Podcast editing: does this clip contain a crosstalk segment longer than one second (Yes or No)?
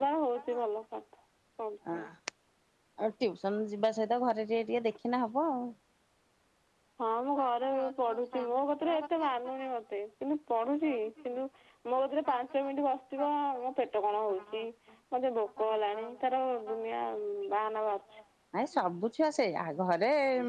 No